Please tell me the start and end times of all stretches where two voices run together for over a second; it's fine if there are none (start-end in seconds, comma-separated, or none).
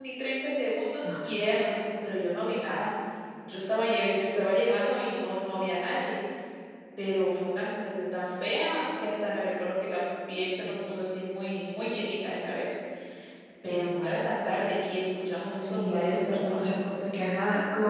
15.6-16.8